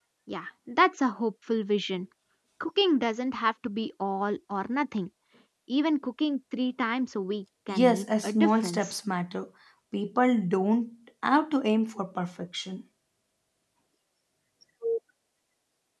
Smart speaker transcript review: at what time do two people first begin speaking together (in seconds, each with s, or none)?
7.7 s